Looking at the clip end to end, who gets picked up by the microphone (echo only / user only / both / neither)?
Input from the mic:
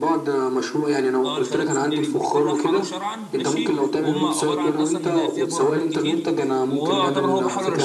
both